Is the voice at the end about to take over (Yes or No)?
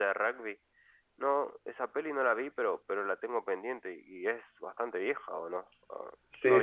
Yes